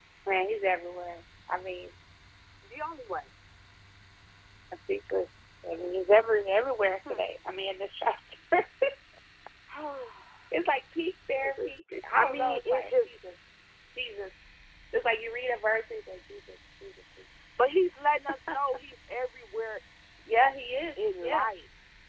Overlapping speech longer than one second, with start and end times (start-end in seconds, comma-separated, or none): 11.4-13.1